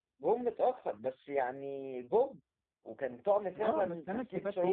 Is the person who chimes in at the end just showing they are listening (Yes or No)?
No